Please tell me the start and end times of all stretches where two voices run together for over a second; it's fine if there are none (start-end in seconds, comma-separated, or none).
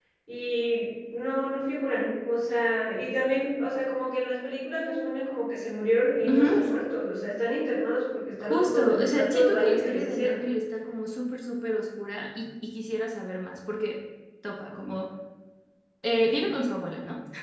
8.4-10.4